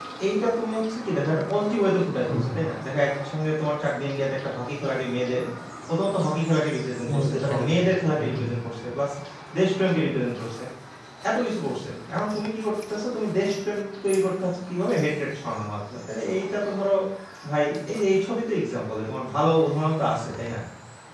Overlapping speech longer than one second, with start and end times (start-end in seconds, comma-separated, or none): 7.1-8.5